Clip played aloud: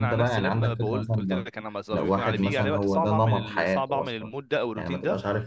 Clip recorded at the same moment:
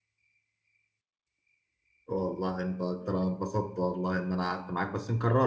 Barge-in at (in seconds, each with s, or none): 2.1 s